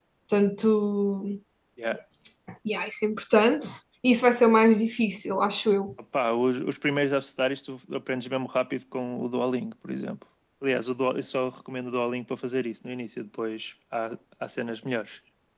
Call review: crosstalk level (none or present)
none